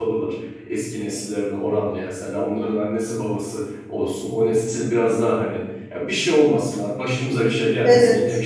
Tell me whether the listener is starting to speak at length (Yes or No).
No